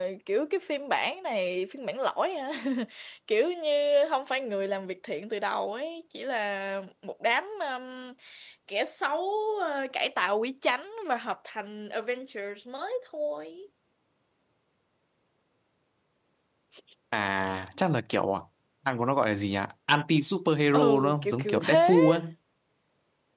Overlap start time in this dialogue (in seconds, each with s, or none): 20.7 s